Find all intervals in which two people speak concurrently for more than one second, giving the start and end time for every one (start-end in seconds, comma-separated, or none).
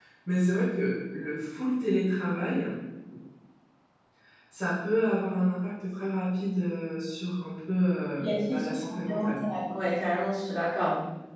8.2-9.4